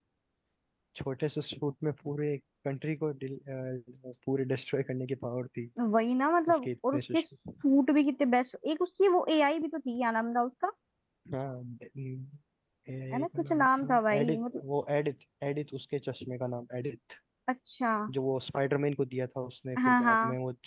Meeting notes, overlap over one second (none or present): present